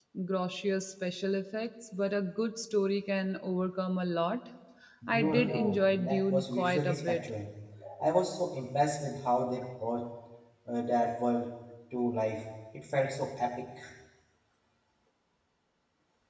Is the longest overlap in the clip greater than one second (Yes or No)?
Yes